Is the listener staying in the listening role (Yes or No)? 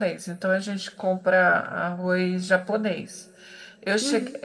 Yes